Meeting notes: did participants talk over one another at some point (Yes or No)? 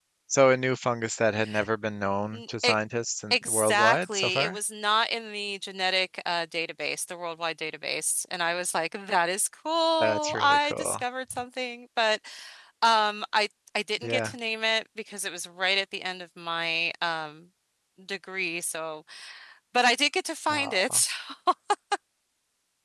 Yes